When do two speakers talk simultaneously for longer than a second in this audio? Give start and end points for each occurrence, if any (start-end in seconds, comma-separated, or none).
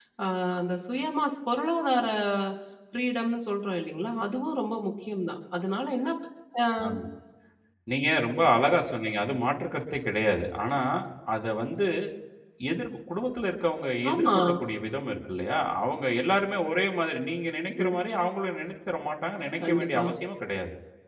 none